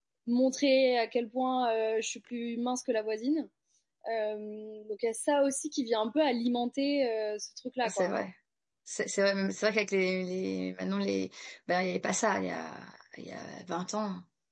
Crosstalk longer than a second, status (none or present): none